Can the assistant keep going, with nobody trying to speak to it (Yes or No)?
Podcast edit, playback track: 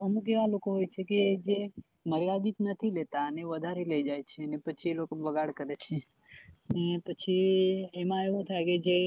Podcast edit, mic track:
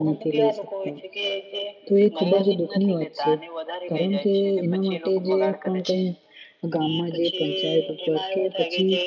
No